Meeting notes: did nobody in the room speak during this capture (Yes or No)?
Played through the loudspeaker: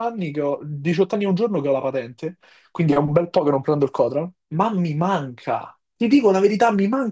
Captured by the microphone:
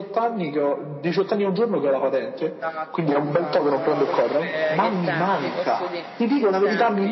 No